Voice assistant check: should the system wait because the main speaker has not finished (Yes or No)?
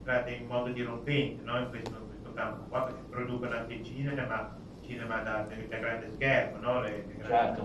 No